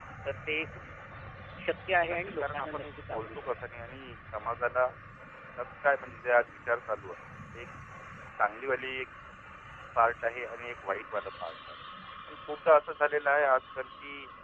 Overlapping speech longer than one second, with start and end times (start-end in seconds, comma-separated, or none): 2.1-3.5